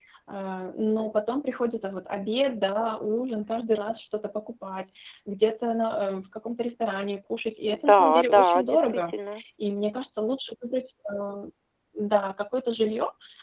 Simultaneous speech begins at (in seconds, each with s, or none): 7.7 s